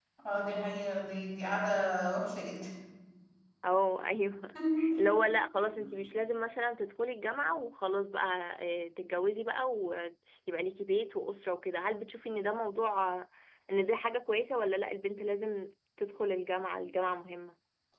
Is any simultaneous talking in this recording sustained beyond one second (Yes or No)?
No